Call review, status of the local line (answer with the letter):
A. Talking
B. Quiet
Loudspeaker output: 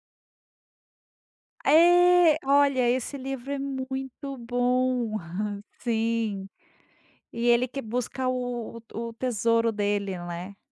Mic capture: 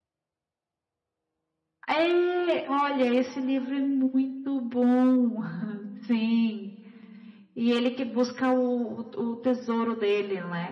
B